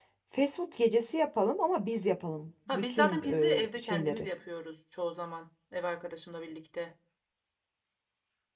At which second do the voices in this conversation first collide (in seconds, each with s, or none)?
2.7 s